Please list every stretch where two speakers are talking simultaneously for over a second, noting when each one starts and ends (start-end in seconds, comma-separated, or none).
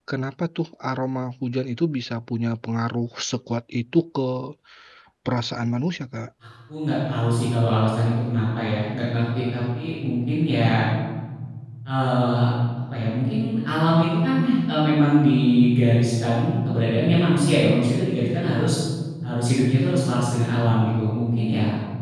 none